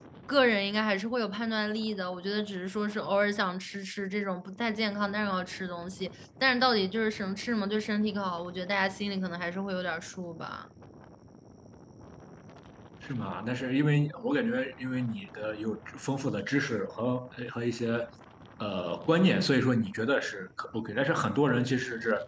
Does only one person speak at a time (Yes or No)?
Yes